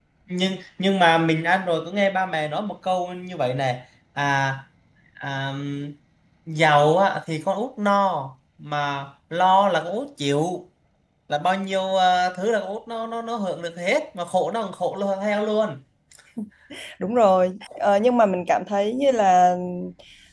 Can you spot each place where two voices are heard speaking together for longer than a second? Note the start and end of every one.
none

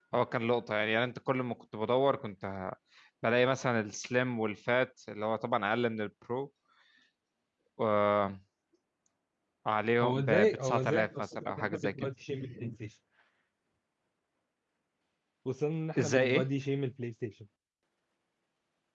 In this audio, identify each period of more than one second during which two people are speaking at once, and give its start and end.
10.0-11.9

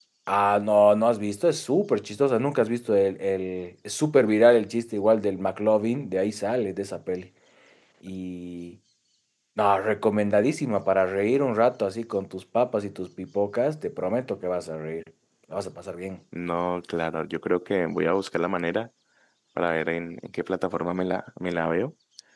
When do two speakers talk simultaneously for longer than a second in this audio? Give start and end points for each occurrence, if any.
none

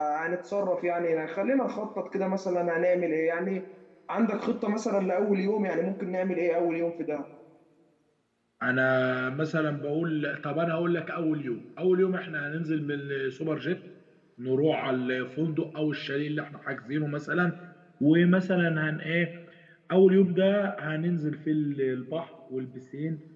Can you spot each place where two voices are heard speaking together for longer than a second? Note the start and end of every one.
none

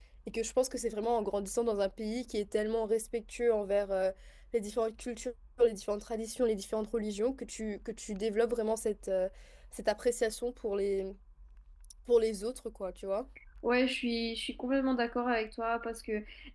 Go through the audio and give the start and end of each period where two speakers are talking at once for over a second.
none

